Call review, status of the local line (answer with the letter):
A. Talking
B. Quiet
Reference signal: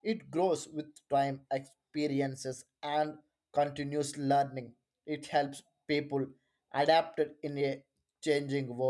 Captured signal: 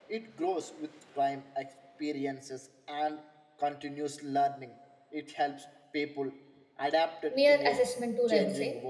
A